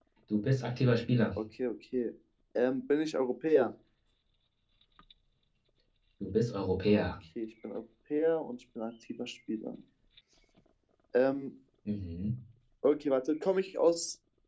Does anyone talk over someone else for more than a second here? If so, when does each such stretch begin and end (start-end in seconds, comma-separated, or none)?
none